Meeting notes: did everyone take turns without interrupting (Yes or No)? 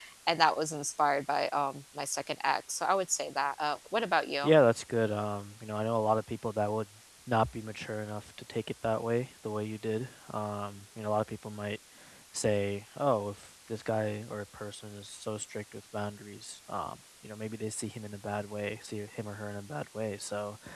Yes